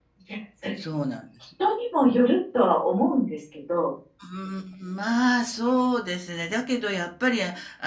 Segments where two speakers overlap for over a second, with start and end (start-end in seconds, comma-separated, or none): none